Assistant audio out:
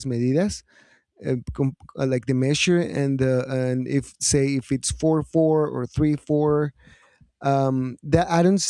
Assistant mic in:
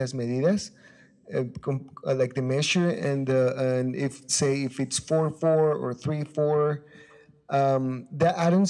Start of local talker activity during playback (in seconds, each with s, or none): none